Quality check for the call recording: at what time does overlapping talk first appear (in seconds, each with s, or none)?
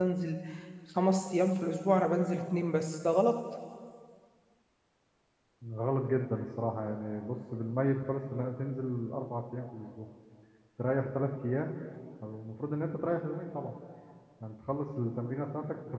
none